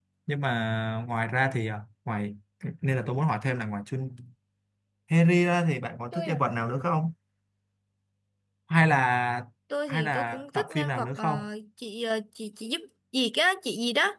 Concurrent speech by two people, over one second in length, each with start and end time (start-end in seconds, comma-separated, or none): 9.9-11.2